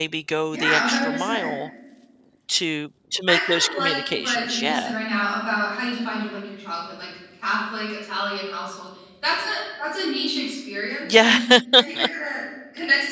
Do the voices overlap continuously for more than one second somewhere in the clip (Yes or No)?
Yes